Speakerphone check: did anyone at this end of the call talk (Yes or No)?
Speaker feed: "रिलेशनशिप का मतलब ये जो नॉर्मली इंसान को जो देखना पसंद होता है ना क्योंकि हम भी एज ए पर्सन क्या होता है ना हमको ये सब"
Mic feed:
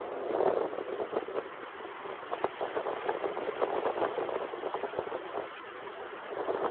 No